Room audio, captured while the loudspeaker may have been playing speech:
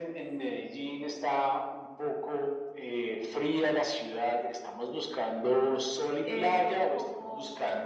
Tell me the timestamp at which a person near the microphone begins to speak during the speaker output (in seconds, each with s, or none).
6.2 s